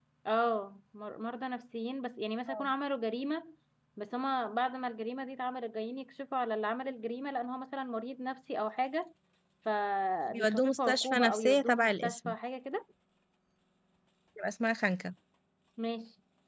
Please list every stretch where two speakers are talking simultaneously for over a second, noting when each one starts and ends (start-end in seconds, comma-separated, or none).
10.3-12.3